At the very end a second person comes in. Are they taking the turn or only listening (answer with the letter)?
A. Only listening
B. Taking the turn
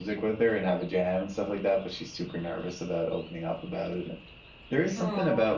A